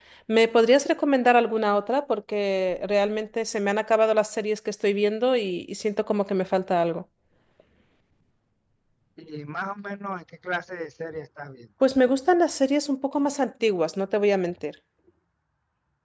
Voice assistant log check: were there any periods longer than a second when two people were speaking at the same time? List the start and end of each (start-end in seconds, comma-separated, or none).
none